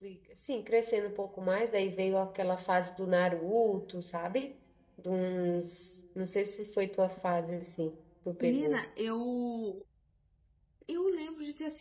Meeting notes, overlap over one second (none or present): none